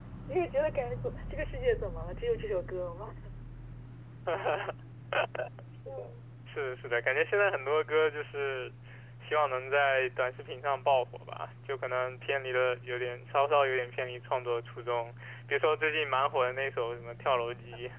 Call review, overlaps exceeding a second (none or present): none